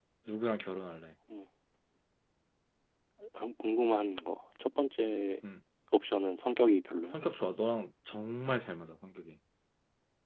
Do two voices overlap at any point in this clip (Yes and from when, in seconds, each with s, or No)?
No